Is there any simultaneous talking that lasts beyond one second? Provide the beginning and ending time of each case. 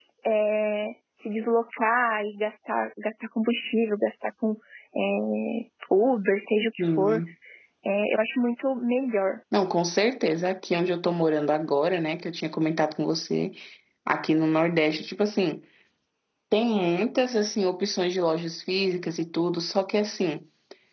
none

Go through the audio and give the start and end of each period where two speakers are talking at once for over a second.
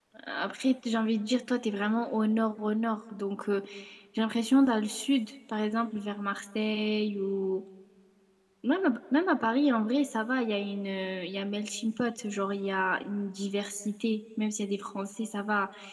none

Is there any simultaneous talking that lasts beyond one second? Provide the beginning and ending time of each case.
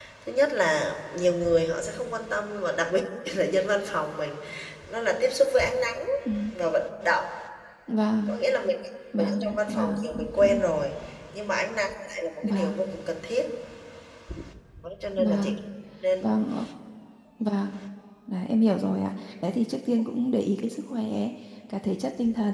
9.1-10.4

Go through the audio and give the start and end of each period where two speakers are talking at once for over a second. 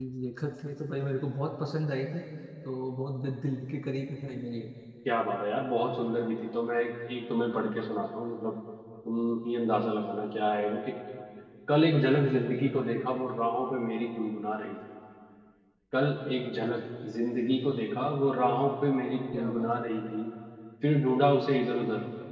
none

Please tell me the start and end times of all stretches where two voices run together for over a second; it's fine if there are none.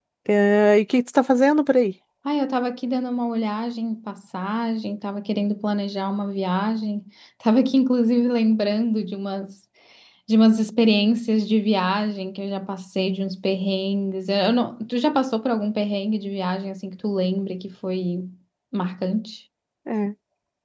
none

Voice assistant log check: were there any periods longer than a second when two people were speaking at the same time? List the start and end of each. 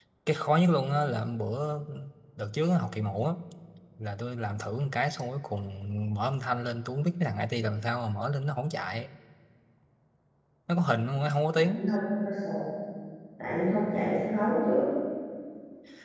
none

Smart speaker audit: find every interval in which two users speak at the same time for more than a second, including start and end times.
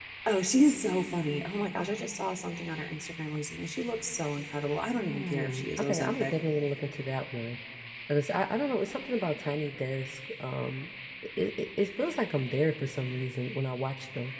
5.0-6.3

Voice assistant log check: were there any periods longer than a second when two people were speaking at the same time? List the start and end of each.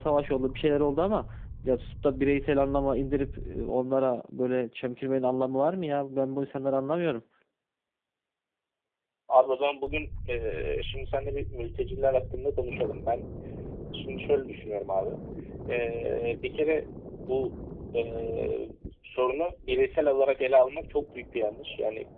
none

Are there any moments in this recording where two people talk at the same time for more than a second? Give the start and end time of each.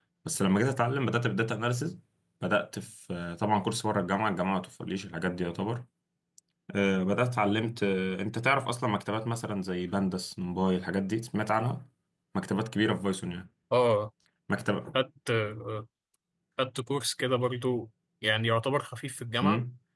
none

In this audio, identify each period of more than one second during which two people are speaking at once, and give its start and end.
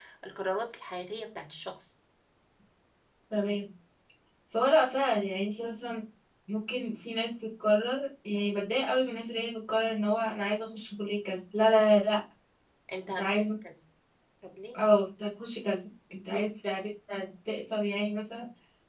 none

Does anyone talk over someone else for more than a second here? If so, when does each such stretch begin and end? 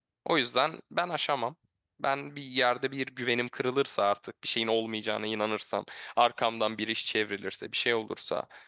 none

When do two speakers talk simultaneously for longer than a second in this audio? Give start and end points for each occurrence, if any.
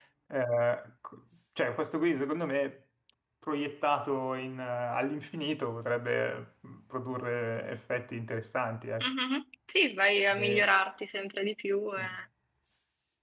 none

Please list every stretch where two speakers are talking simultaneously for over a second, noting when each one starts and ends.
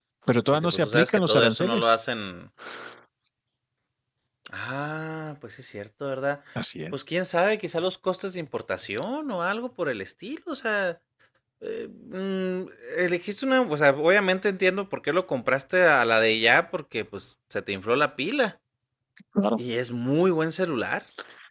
0.5-2.0

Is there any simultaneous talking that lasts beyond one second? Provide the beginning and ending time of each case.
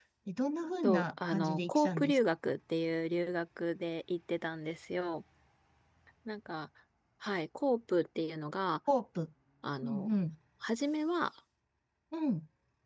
0.8-2.2

